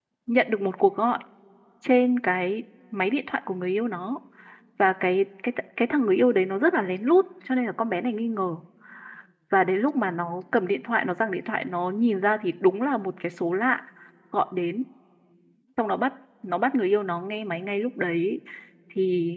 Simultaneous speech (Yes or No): No